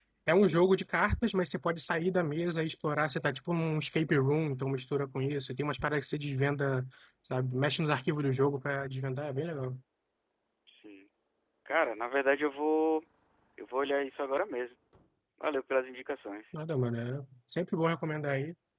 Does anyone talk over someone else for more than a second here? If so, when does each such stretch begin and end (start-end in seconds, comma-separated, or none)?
none